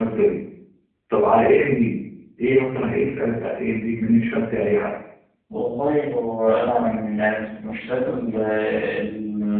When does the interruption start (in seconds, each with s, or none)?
none